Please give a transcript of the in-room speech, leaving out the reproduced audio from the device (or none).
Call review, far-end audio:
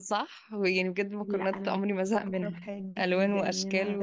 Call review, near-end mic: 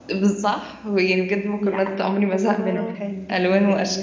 الله